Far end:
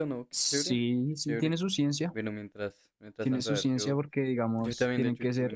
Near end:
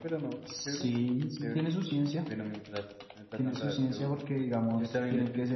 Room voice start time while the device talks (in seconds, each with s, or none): none